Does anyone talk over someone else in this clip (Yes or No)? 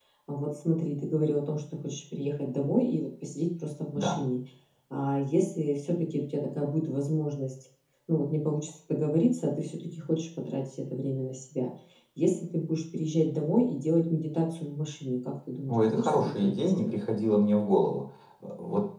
Yes